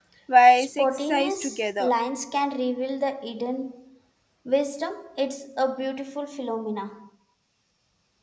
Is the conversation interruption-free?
No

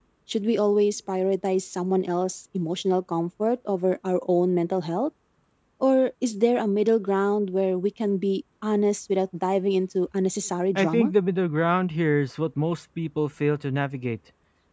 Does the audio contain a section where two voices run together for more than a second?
No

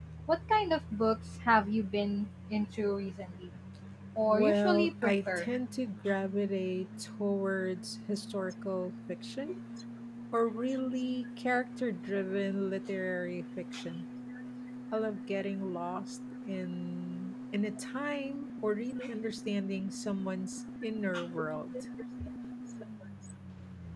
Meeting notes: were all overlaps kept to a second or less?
No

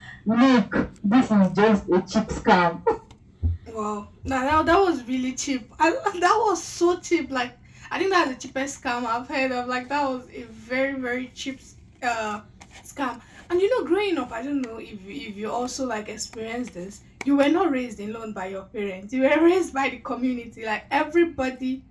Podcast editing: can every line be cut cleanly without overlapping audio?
Yes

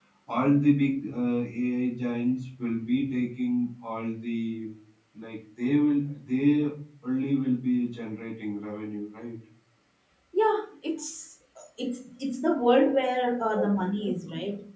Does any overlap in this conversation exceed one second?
No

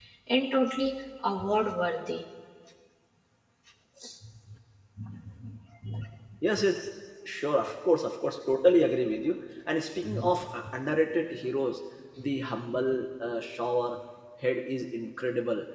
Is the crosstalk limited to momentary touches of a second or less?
Yes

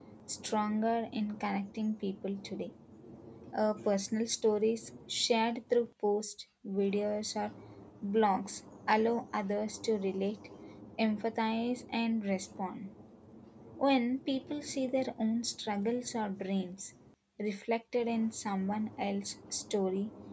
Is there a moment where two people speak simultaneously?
No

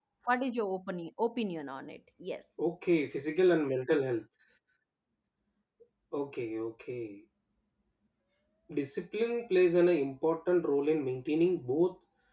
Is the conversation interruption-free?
Yes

